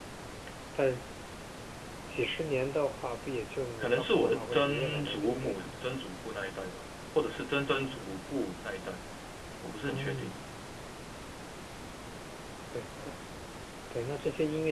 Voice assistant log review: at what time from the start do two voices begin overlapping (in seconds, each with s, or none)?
3.8 s